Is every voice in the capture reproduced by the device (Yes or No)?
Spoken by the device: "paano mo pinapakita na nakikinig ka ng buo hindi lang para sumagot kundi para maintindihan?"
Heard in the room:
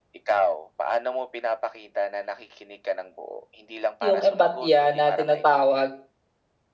No